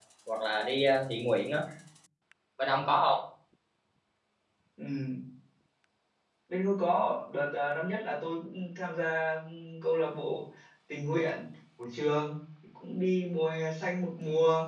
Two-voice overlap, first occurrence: none

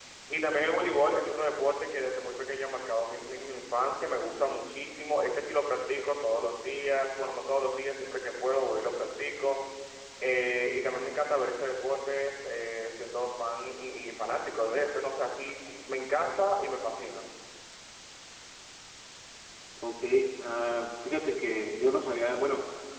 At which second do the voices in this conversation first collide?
none

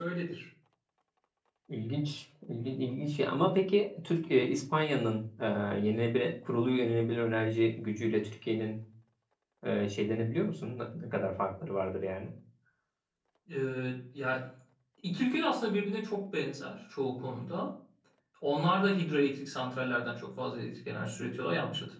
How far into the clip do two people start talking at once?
none

